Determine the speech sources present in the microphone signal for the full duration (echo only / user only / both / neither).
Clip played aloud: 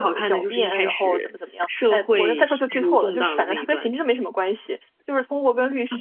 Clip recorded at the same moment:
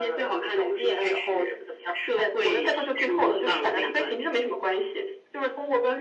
echo only